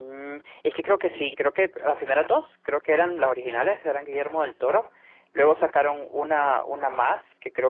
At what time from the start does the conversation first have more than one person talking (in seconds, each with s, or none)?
none